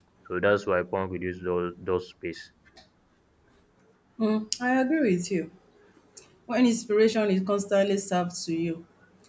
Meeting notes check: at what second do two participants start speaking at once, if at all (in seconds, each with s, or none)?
none